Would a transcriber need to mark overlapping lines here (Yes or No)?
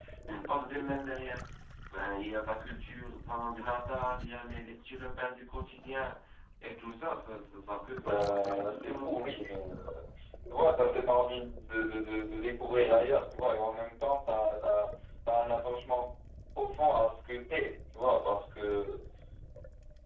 Yes